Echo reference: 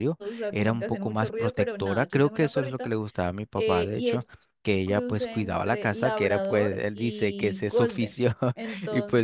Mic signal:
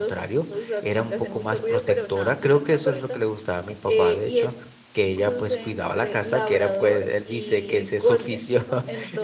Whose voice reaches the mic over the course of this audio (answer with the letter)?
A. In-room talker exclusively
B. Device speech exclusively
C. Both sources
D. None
C